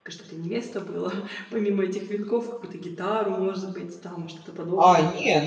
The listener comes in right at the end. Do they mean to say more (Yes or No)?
Yes